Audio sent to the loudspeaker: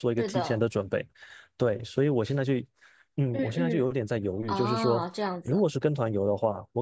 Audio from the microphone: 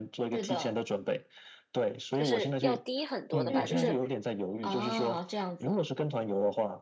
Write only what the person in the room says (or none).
就是要低很多的吧，就是